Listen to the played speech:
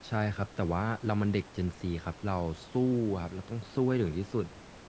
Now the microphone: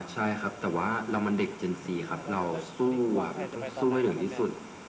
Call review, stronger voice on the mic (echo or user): echo